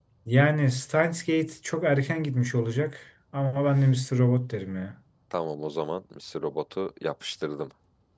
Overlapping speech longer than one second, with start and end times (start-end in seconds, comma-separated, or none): none